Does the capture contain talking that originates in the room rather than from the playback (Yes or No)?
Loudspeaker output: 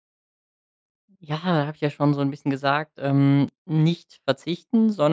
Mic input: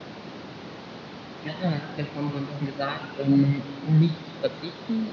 No